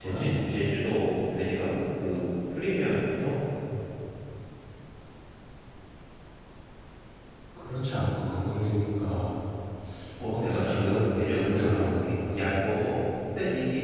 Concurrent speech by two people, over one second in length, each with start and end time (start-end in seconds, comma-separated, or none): 10.2-12.6